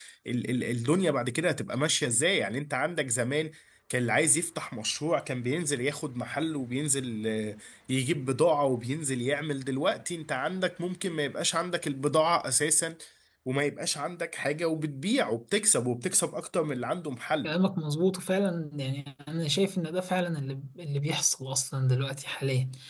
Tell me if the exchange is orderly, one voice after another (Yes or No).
Yes